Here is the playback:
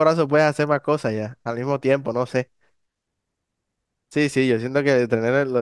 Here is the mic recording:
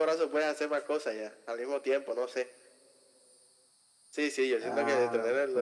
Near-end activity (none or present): present